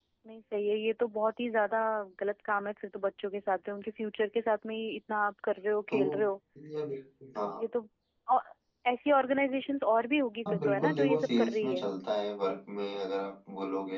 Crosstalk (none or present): present